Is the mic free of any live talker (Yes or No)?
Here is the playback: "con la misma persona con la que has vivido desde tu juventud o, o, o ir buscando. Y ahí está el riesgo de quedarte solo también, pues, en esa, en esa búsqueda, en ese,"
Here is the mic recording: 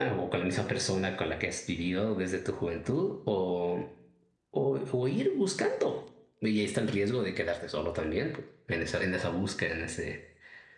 Yes